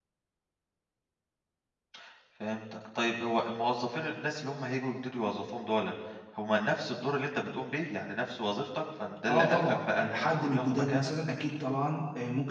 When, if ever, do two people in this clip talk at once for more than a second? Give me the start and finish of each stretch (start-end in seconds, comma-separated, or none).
9.3-11.1